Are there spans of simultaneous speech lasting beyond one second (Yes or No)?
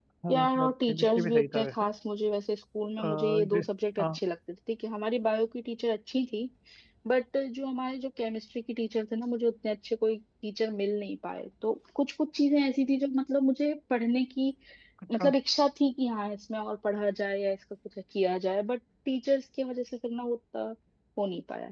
Yes